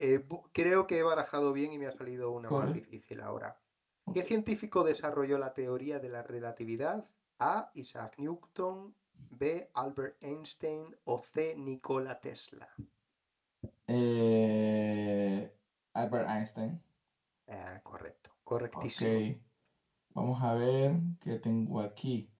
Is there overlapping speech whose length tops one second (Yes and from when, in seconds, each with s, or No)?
No